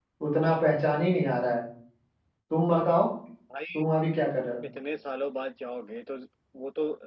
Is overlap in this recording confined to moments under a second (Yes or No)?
Yes